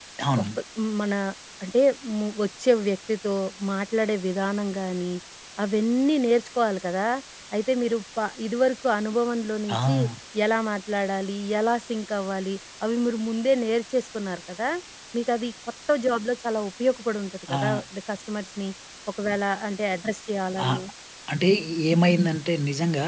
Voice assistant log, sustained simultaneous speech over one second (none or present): none